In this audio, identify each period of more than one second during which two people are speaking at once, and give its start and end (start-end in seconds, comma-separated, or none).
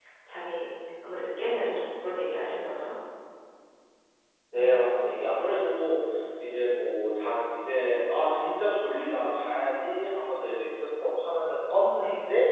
none